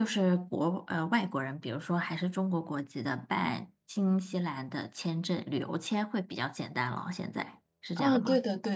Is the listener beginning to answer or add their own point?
Yes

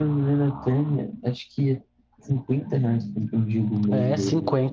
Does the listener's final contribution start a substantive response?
Yes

